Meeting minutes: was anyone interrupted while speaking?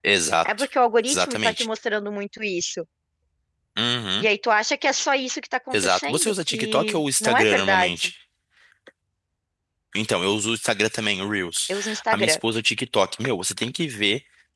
Yes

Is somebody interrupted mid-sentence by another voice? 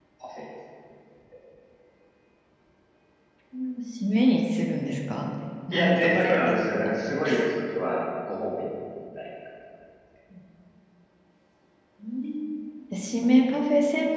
Yes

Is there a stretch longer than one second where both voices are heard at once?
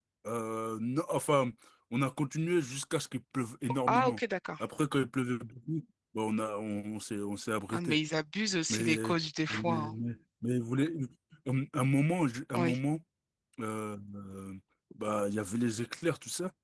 No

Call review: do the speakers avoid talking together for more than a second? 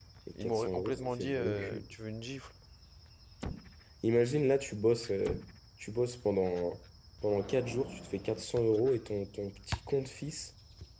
No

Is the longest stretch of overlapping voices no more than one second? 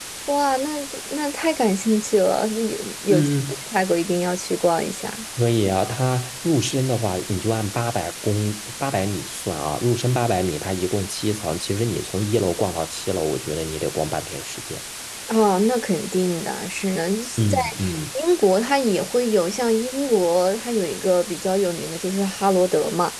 Yes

